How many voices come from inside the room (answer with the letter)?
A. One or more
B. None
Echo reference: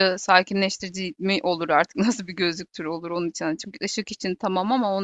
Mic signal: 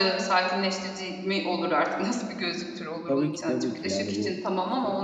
A